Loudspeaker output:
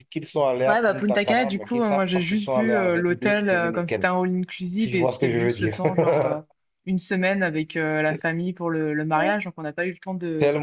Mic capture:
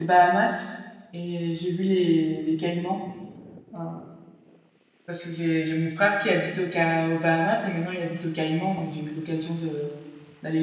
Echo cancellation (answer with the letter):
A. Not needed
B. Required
A